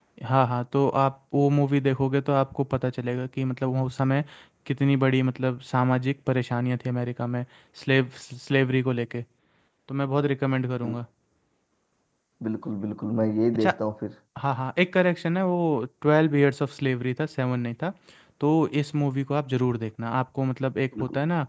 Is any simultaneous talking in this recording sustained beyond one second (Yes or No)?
No